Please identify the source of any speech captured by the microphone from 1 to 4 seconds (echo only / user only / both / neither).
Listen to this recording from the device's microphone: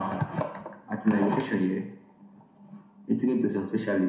echo only